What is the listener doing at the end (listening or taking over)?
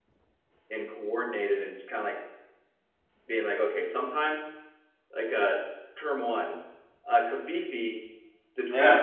listening